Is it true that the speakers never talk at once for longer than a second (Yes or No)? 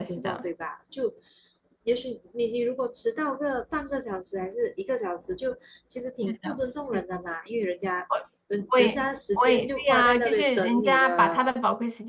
No